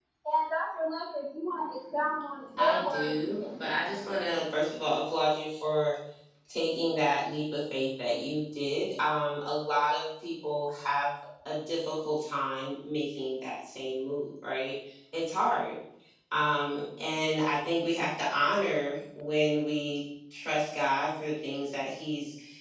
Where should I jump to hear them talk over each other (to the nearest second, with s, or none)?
3 s